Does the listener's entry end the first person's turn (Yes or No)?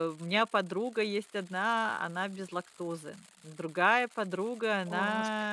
No